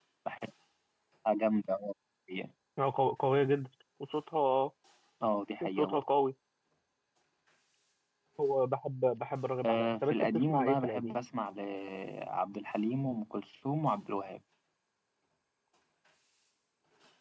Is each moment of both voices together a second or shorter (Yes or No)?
No